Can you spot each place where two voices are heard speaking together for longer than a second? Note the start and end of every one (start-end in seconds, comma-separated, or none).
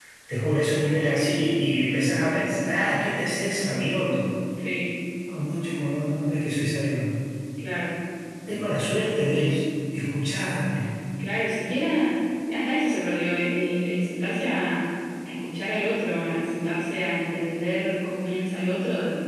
none